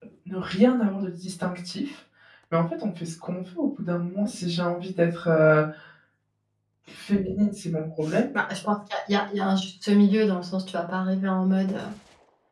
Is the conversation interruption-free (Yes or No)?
Yes